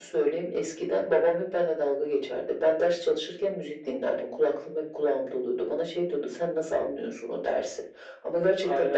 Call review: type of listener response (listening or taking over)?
taking over